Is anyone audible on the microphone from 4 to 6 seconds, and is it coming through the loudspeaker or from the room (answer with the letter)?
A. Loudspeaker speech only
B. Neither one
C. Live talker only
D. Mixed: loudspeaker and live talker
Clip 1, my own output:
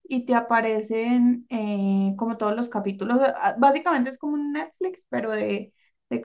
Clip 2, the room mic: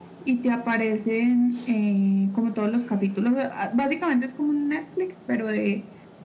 A